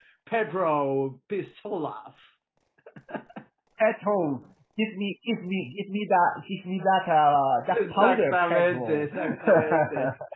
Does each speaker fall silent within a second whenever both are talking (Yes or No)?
No